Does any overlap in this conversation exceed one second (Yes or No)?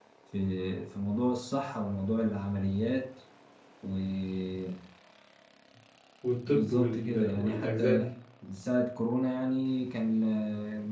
Yes